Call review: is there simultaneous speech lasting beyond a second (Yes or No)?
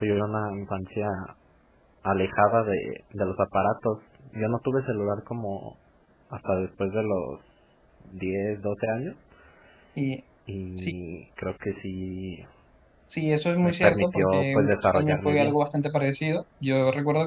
Yes